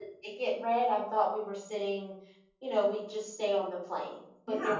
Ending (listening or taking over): listening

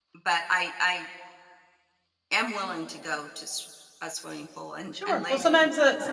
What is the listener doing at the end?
taking over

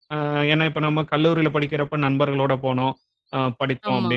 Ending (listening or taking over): listening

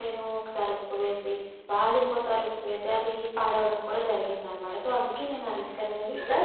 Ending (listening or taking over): taking over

